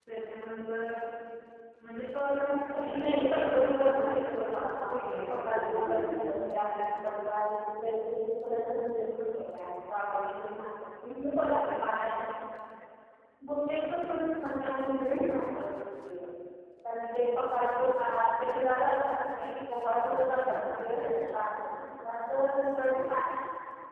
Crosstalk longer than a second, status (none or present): present